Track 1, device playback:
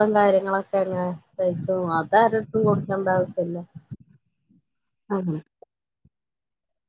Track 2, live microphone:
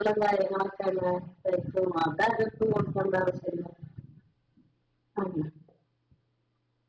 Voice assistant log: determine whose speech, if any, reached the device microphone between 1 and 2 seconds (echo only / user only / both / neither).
echo only